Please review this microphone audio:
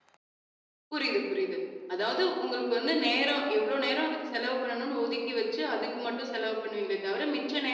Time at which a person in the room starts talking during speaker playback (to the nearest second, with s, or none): none